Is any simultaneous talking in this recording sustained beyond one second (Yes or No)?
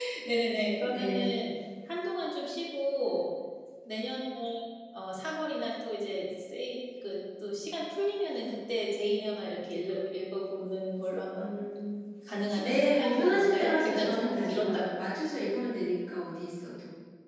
Yes